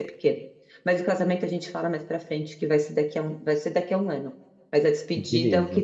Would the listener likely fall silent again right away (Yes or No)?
Yes